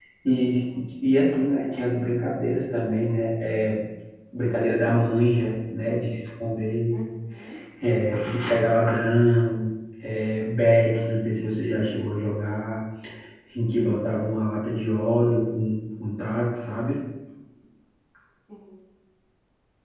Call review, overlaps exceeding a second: none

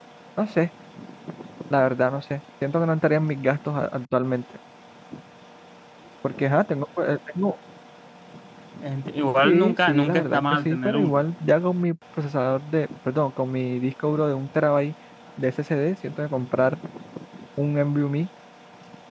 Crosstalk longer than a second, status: present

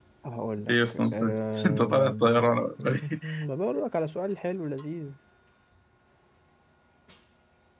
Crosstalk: present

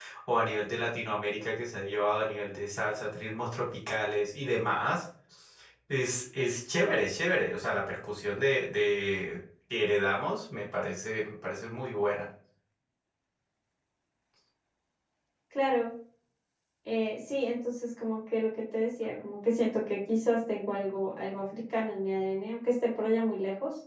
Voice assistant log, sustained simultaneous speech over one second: none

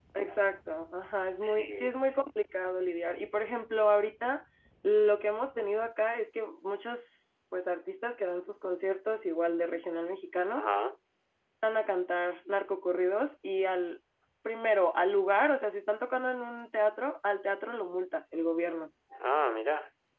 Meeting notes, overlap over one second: none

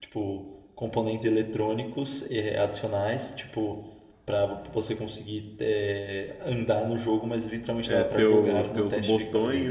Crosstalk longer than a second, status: present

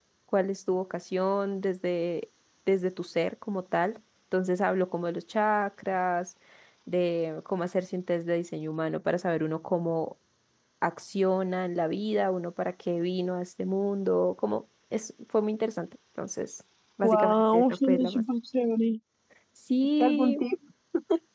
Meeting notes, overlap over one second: present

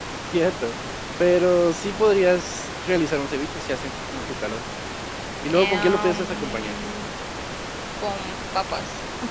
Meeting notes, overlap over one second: present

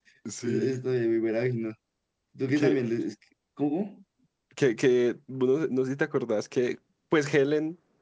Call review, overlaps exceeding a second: none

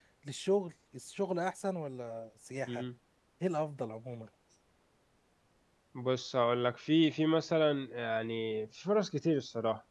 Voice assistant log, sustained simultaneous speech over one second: none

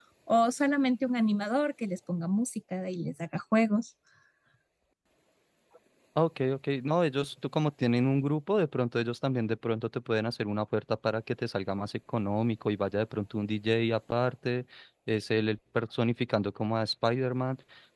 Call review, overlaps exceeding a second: none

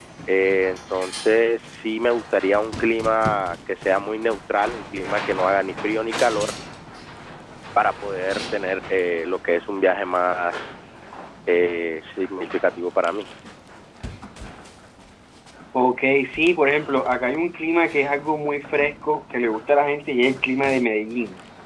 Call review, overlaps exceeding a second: none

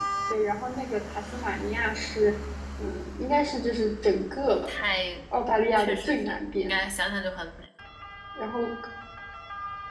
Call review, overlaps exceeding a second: present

